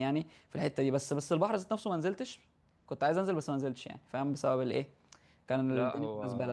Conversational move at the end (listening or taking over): taking over